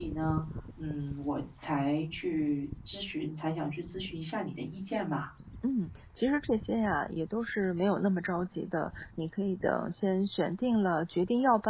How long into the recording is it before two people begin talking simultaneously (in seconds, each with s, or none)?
none